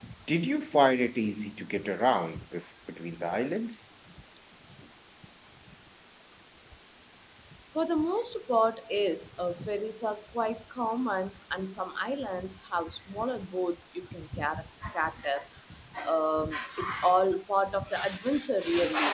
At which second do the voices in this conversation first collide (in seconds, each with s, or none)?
none